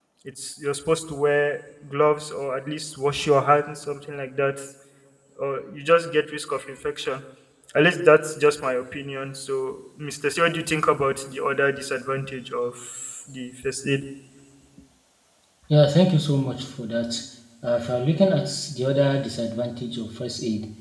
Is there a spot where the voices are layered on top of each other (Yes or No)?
No